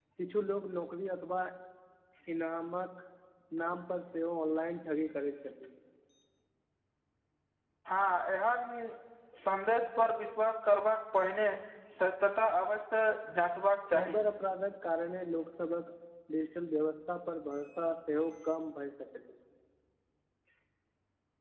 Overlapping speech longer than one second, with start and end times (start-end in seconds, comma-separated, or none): none